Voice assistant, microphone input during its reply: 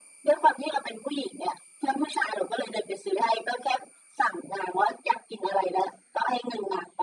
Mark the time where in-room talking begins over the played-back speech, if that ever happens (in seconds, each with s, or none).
none